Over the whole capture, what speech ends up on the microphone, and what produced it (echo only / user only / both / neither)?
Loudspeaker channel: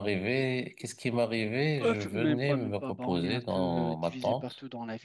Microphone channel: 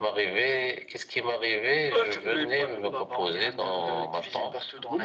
both